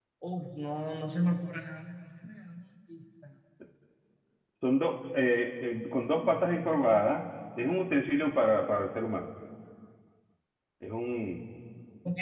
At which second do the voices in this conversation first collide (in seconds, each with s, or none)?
none